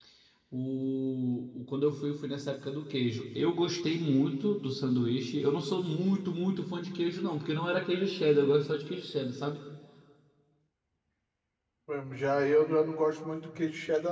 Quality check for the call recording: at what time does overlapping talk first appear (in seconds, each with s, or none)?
none